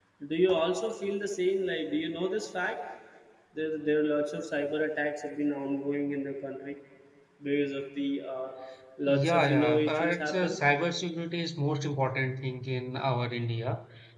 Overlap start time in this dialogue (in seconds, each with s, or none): 9.0 s